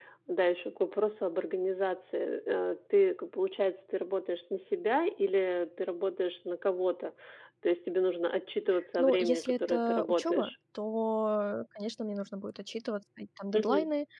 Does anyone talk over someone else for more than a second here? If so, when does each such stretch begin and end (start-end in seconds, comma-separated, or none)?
9.0-10.5